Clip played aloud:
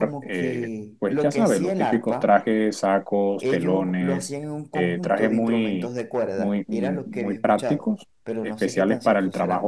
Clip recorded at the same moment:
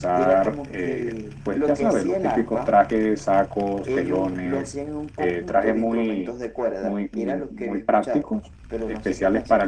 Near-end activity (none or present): none